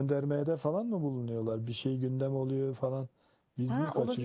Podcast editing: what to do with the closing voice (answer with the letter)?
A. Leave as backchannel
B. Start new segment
B